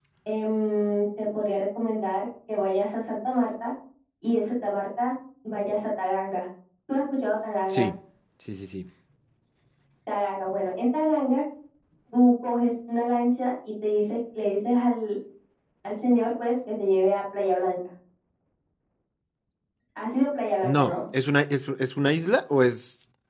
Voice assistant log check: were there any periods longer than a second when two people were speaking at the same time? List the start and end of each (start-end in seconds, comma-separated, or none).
none